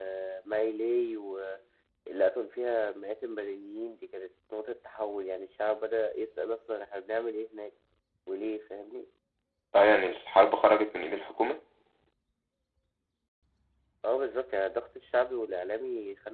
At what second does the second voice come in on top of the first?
none

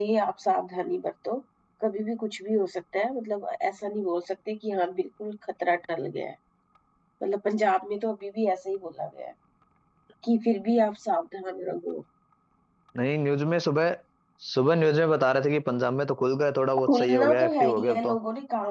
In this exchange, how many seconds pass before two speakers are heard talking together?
16.9 s

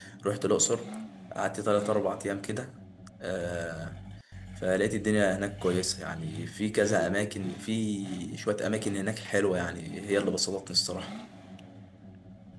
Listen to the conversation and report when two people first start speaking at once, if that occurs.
none

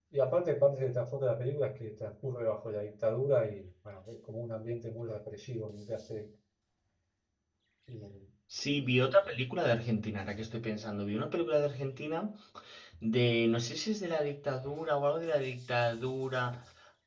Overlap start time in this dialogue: none

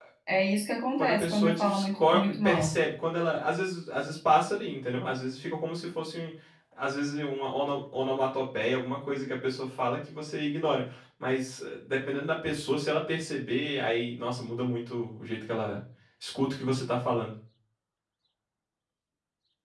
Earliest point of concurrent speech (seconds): 1.0 s

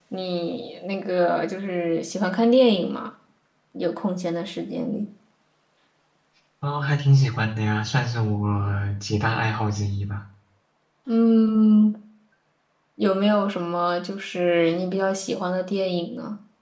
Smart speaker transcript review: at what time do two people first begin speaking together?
none

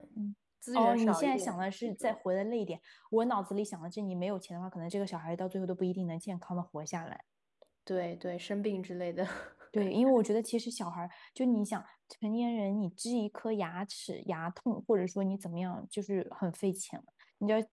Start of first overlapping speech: 0.8 s

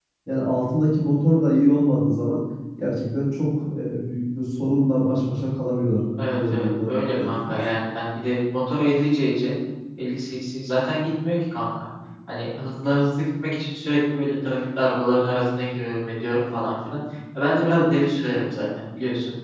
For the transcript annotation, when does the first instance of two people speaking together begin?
6.2 s

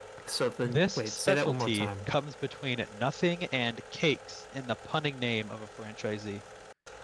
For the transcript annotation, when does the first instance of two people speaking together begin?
0.6 s

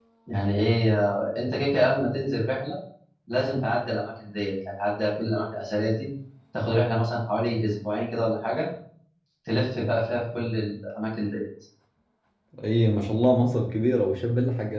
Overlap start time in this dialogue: none

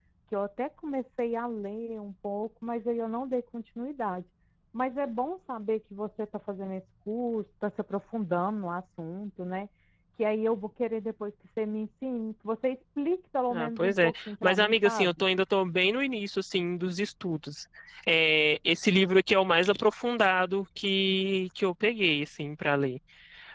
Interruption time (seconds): 13.5 s

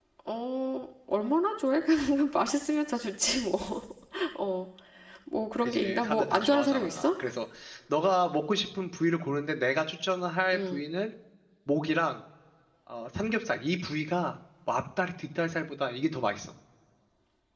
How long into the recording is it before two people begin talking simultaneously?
5.6 s

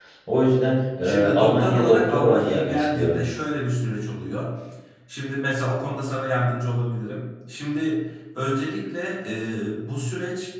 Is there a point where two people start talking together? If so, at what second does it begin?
1.0 s

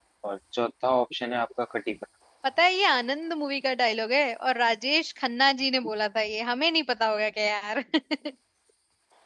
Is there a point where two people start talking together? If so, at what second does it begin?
none

